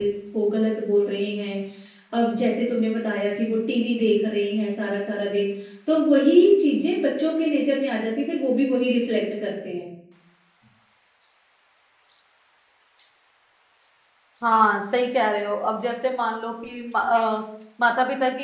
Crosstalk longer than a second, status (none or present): none